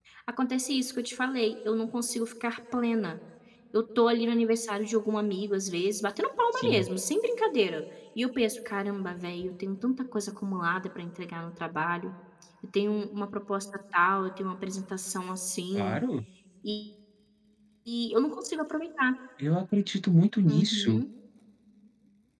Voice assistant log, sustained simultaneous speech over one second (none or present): none